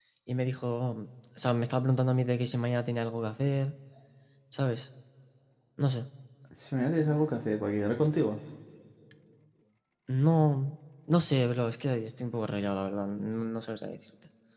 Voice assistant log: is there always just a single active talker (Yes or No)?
Yes